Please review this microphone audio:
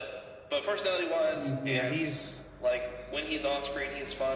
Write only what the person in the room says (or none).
Mm, Yeah, he's